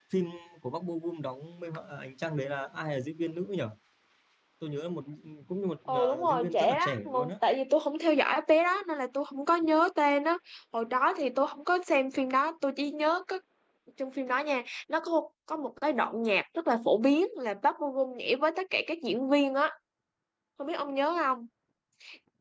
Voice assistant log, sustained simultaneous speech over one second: present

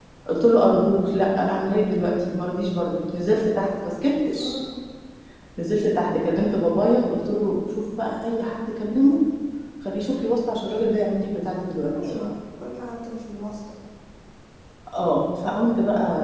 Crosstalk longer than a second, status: none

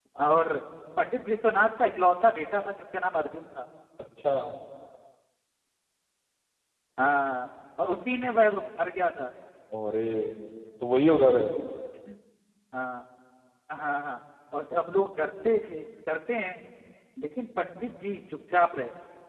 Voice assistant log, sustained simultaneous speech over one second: none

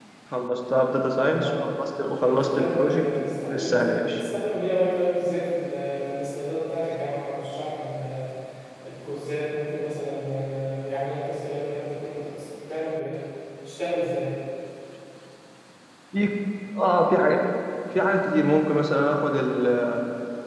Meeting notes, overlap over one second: present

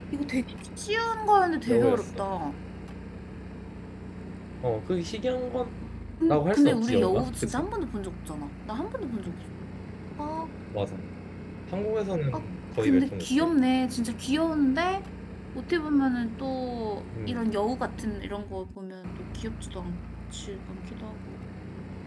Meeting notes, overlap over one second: present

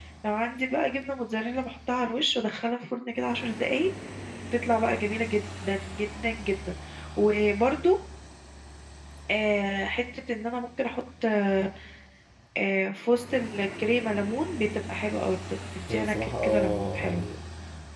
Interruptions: present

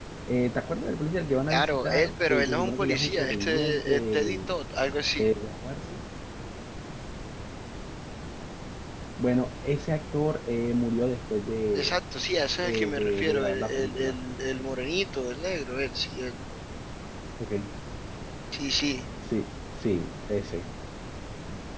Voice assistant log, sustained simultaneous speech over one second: present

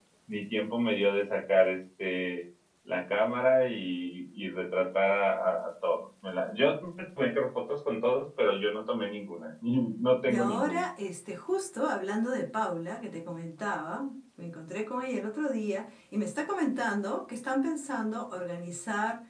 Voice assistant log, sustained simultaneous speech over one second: none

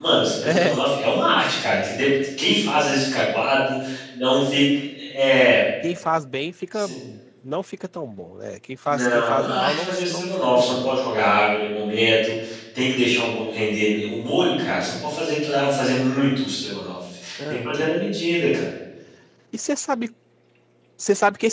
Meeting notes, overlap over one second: present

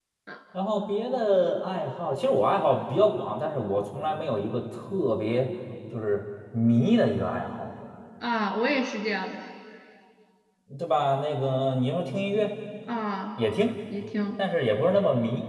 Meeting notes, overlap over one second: none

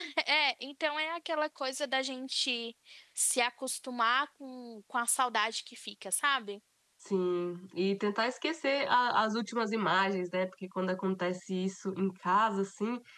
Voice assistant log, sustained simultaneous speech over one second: none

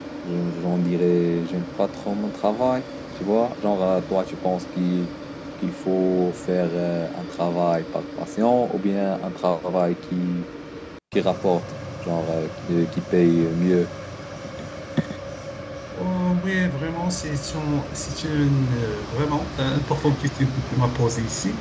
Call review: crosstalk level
none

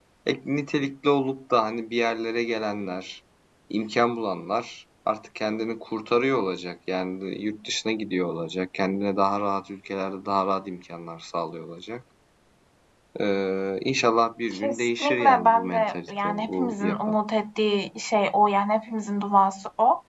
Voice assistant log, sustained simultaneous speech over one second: present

